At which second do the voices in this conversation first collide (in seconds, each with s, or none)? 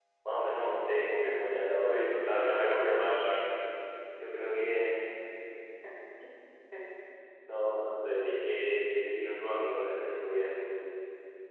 1.8 s